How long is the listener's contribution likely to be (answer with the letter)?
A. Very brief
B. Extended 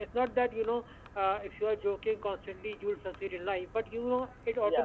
A